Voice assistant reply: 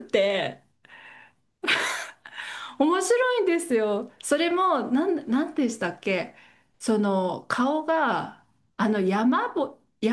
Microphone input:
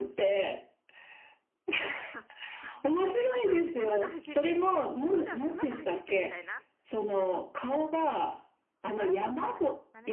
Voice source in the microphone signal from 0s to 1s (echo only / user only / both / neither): echo only